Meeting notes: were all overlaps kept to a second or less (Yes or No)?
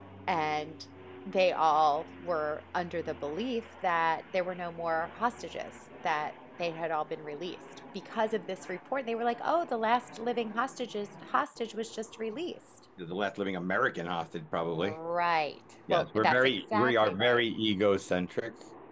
No